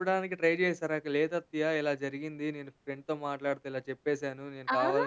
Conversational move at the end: taking over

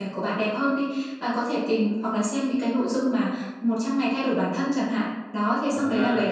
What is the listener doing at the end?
listening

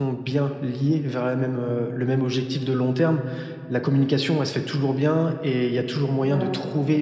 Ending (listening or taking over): listening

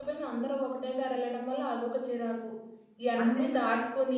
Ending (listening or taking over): listening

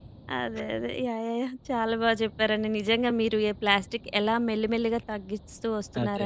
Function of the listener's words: listening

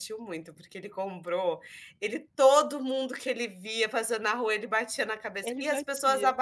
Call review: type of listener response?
listening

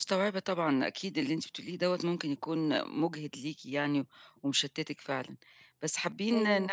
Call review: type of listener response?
listening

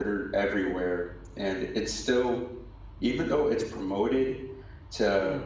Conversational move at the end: listening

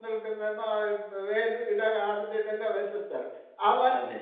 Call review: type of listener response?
listening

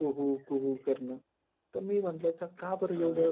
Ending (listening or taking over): listening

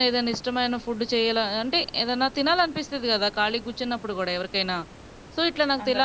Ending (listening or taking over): listening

